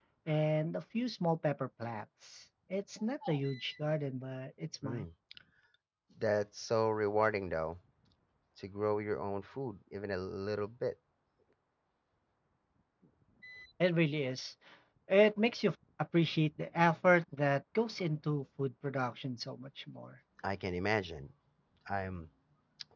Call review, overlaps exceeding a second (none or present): none